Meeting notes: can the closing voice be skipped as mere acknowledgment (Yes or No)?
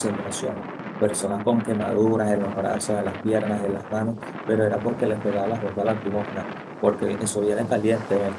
Yes